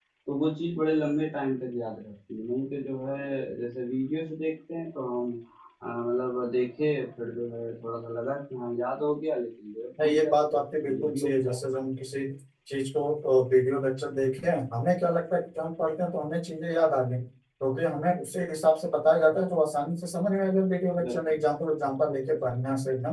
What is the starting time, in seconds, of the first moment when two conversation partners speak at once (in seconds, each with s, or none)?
10.0 s